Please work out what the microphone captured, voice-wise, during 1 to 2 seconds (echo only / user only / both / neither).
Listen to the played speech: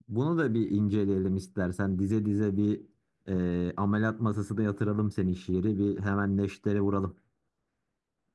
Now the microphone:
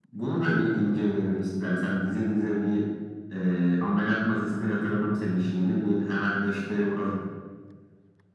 echo only